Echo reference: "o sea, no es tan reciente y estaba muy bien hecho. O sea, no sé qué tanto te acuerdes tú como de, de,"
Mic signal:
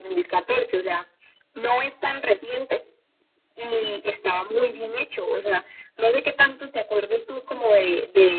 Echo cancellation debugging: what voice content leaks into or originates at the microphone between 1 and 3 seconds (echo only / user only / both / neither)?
echo only